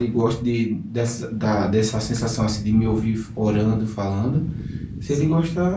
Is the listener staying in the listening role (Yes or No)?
Yes